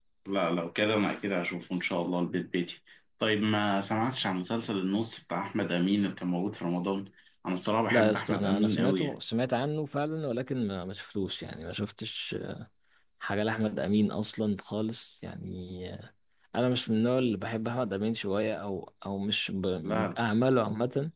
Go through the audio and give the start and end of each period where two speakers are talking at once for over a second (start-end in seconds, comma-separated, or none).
7.9-9.2